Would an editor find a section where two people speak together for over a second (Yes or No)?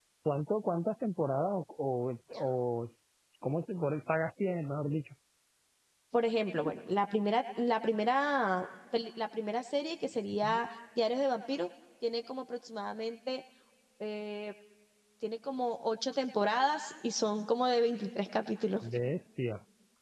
No